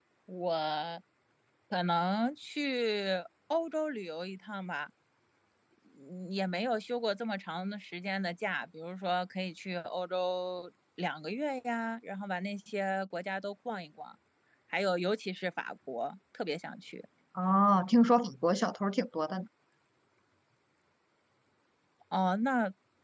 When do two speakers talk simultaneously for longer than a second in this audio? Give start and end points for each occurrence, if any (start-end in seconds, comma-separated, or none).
none